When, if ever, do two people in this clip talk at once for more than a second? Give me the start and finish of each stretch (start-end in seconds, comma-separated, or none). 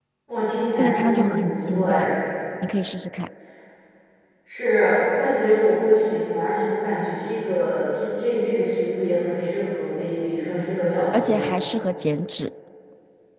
0.8-2.1